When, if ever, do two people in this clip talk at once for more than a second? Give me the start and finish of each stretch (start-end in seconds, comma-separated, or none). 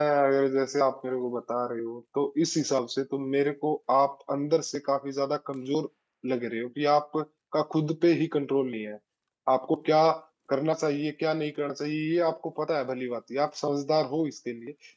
none